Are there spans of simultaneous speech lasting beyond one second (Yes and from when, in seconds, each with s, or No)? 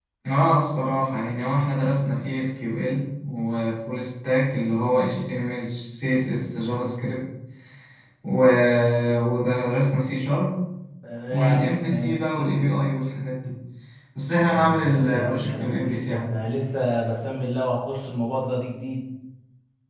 Yes, from 11.3 s